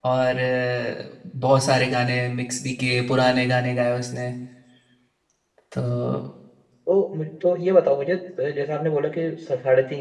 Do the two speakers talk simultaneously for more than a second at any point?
No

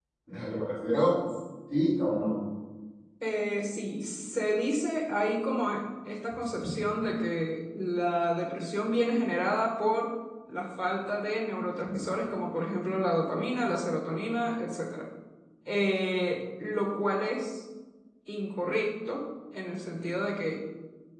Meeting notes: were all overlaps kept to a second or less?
Yes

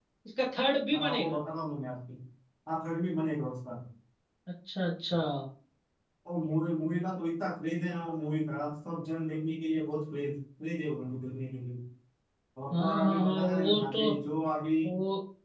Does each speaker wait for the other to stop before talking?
No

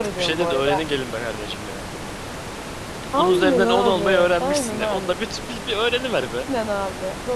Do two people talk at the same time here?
Yes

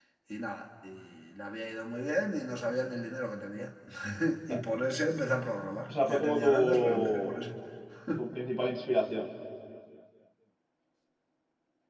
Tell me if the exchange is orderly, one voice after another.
No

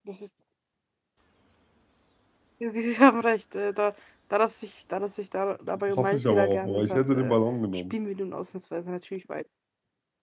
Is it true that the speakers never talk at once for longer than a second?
No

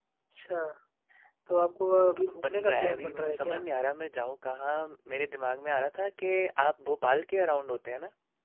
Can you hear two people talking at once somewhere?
Yes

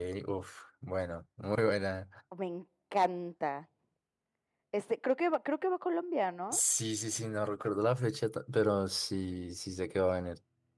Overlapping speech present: No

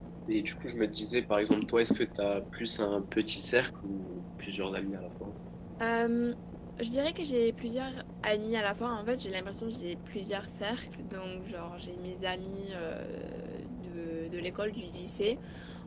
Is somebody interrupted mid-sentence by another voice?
No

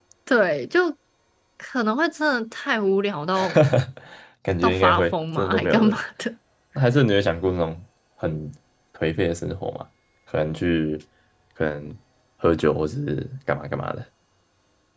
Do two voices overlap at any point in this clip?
Yes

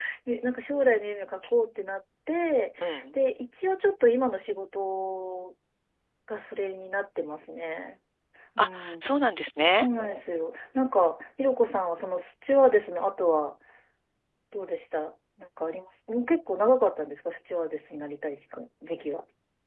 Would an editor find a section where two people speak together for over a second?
No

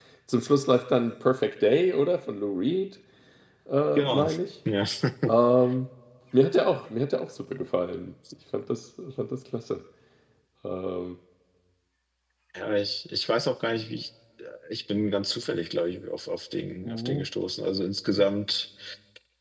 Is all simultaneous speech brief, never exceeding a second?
Yes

